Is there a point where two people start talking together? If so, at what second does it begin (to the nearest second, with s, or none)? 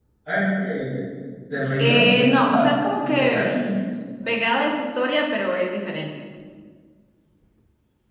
2 s